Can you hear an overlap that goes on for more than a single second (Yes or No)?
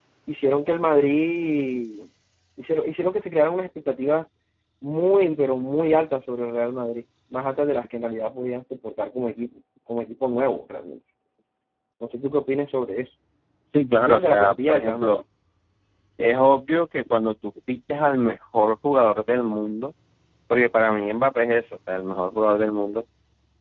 Yes